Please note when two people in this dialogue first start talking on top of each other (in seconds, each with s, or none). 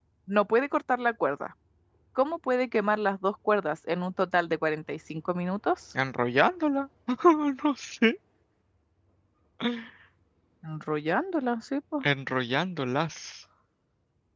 none